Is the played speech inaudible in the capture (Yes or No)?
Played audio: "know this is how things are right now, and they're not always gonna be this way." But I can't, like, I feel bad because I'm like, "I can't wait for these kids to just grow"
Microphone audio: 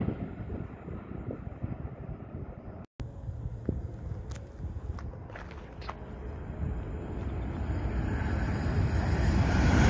Yes